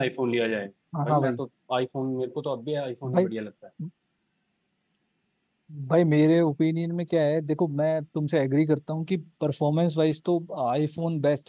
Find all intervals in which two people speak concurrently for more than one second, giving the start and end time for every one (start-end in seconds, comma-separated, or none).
none